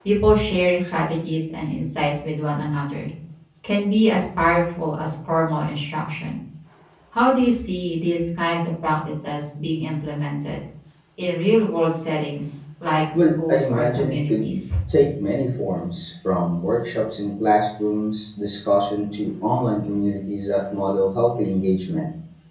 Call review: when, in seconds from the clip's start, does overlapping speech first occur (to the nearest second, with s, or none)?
13 s